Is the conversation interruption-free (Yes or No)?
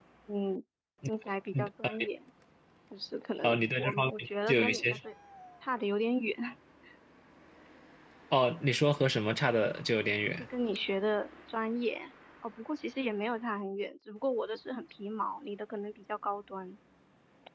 No